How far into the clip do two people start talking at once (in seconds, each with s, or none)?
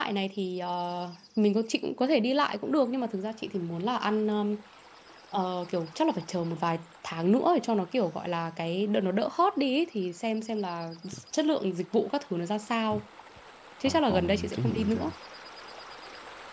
13.8 s